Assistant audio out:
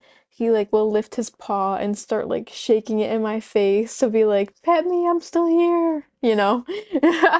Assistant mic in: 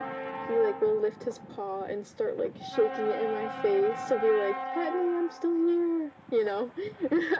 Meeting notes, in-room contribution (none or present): none